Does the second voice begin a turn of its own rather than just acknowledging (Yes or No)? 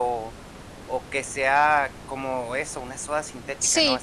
Yes